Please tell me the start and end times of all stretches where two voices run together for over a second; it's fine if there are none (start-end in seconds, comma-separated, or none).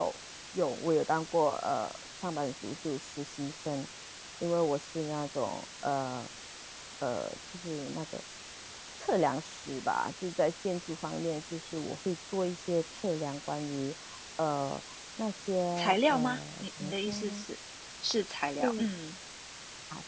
15.8-17.4